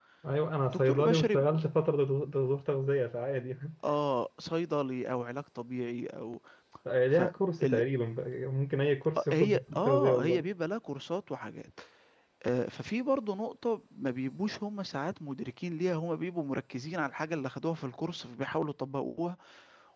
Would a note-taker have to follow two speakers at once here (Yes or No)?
Yes